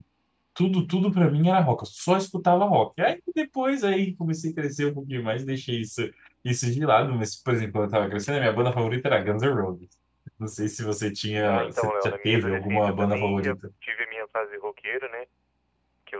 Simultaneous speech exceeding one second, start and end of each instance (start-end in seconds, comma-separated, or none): 11.4-13.6